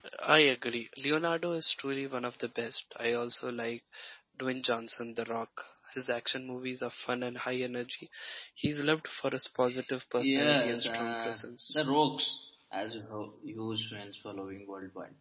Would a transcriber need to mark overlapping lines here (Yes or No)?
Yes